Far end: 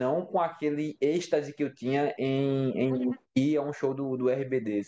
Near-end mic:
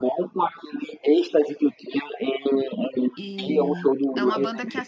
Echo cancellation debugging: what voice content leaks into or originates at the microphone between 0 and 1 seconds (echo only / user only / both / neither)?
echo only